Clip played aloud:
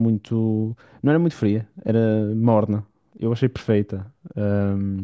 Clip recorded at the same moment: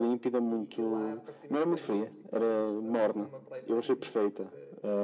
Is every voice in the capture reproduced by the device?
No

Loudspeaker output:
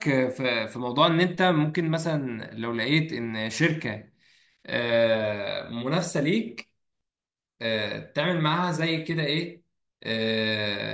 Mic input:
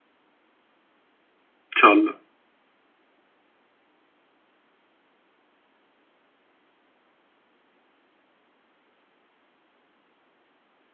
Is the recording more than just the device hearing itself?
Yes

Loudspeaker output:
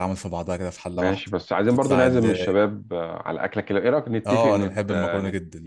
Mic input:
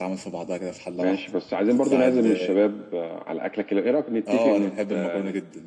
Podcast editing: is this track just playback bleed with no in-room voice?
Yes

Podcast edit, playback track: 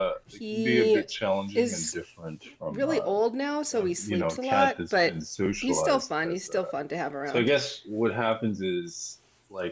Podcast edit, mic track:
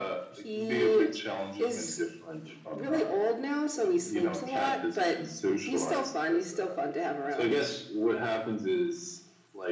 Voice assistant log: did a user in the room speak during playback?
No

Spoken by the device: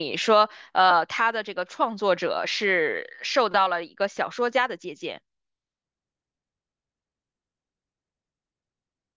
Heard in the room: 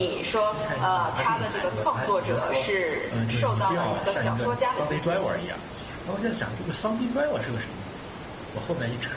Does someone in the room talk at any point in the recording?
Yes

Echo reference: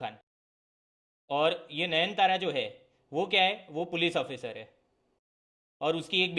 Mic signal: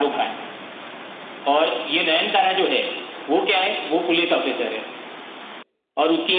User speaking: No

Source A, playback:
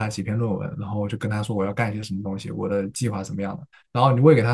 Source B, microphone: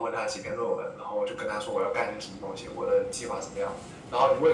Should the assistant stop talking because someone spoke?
No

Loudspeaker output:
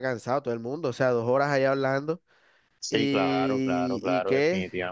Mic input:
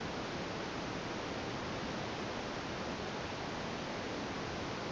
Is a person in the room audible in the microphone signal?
No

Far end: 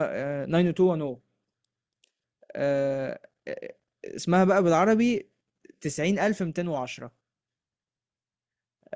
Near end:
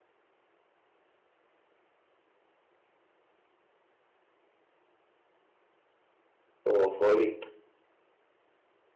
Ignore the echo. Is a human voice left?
Yes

